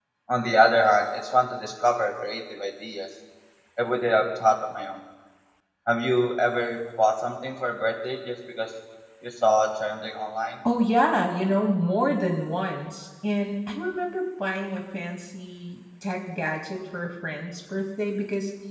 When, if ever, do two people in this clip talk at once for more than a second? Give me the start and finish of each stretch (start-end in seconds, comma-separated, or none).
none